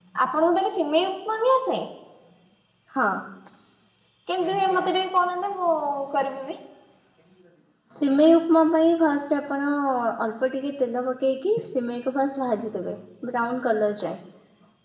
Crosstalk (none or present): none